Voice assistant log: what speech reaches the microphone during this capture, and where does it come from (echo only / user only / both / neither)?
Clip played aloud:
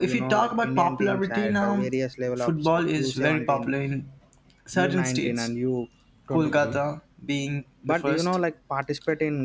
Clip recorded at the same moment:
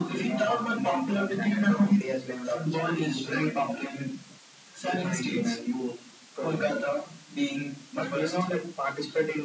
echo only